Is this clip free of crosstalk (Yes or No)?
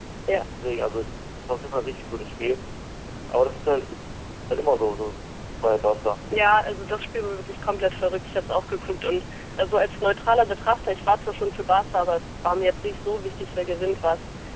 Yes